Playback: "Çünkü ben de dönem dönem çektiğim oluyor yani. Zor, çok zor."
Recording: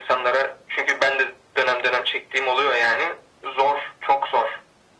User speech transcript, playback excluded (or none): none